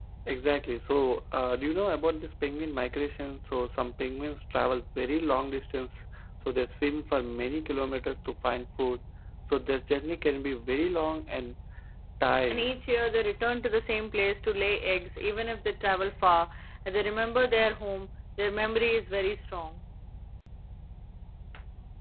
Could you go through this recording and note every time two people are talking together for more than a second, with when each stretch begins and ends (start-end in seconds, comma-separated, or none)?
none